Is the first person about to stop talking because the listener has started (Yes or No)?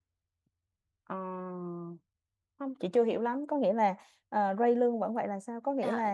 Yes